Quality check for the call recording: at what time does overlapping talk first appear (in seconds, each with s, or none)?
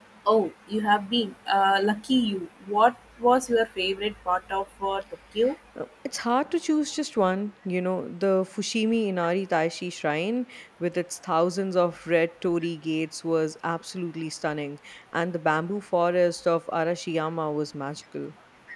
none